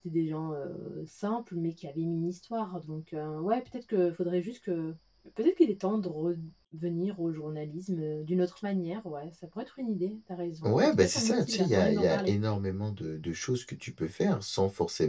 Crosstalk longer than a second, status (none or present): present